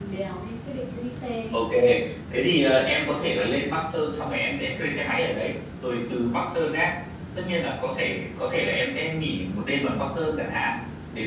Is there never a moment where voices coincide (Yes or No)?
Yes